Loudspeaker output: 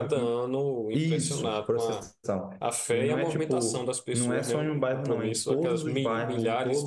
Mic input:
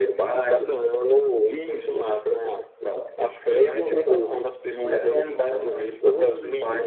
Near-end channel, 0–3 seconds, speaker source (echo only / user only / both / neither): echo only